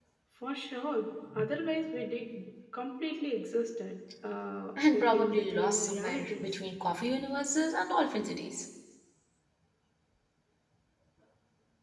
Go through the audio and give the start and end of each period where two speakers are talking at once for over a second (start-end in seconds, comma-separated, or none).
4.9-6.5